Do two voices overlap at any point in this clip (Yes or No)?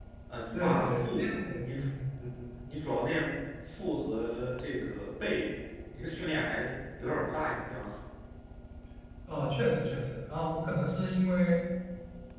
Yes